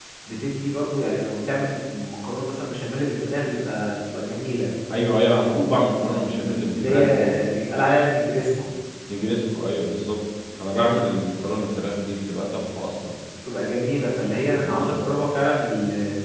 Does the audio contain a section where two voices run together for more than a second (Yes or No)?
No